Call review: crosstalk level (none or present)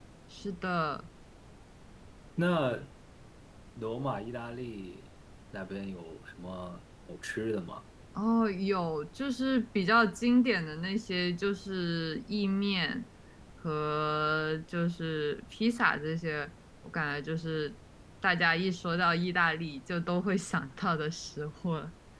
none